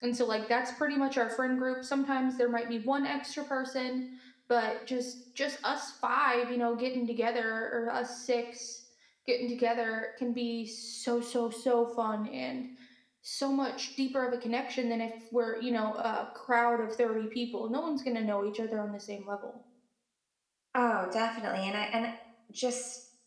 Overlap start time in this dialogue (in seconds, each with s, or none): none